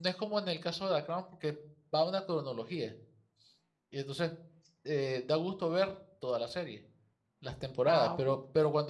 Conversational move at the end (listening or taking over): listening